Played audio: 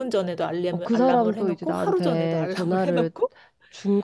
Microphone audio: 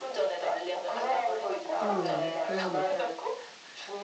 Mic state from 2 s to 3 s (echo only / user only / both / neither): both